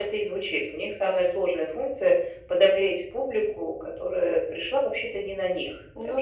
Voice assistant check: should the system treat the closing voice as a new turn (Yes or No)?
No